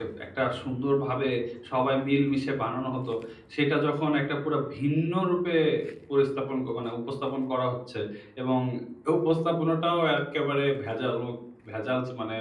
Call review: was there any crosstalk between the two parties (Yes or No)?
No